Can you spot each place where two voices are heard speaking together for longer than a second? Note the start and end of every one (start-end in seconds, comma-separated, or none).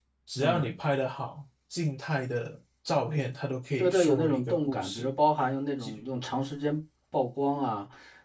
3.8-5.1